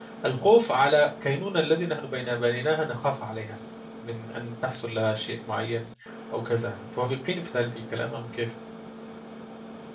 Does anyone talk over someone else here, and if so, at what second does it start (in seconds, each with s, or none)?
none